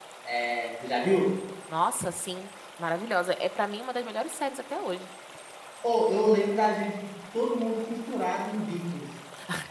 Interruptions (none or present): none